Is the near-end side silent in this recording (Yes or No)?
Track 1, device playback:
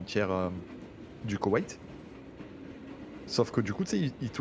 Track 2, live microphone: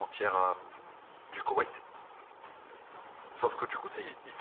Yes